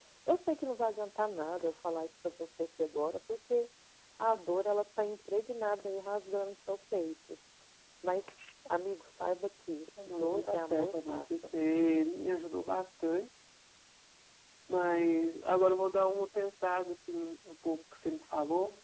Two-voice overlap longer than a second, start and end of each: 10.1-11.5

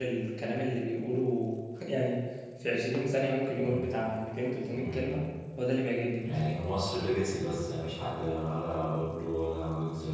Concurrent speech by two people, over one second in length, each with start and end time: none

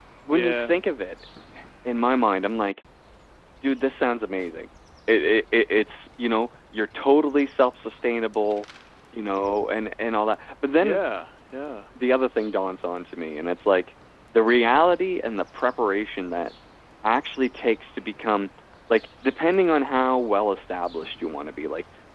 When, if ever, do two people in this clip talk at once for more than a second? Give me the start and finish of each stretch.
none

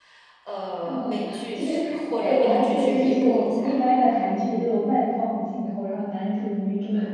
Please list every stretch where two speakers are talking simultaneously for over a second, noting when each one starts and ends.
2.2-3.7

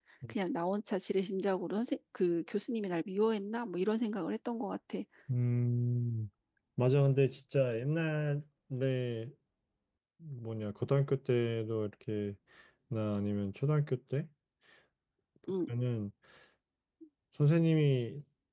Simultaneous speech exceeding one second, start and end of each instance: none

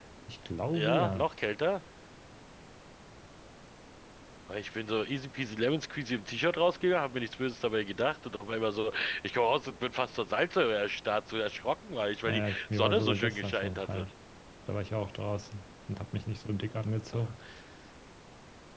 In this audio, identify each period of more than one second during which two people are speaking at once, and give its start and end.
12.3-14.0

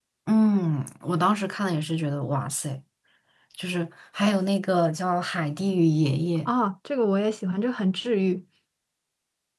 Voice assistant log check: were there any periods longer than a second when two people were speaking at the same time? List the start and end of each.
none

